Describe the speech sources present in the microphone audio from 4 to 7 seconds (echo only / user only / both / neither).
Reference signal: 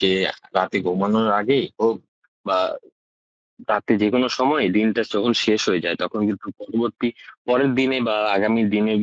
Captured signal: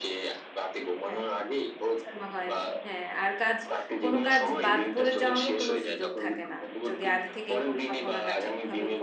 both